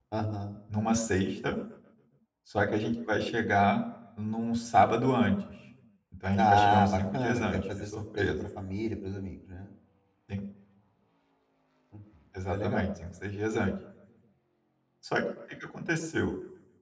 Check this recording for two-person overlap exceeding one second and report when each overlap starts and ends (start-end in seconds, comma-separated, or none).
6.4-8.4